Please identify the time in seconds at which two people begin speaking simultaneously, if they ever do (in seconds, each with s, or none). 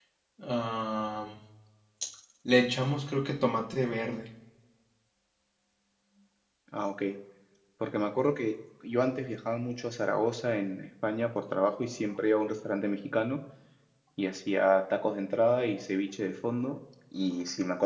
none